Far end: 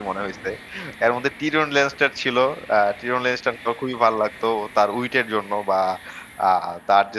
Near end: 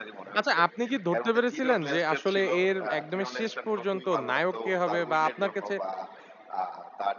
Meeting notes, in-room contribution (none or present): present